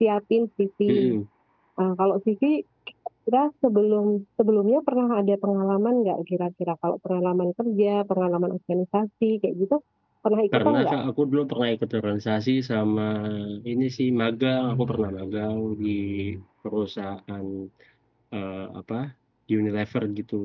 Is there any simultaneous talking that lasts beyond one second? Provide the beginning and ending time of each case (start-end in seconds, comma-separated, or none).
none